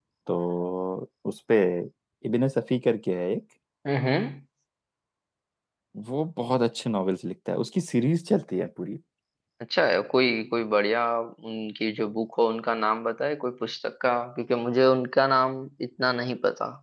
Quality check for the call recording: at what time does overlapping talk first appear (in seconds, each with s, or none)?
none